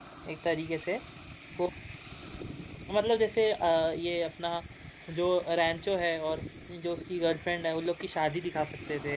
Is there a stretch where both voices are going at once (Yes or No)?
No